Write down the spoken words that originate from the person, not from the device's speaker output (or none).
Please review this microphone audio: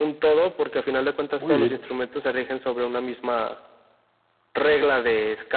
muy bien.